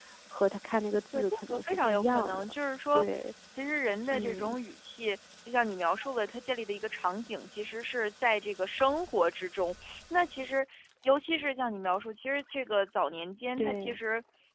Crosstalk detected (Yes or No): Yes